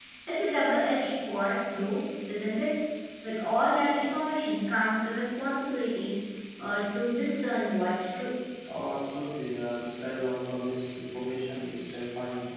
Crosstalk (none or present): none